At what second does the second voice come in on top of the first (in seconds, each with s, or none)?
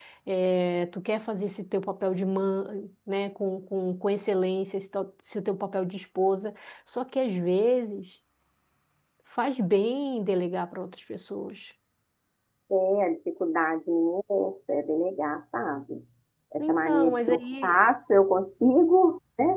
16.6 s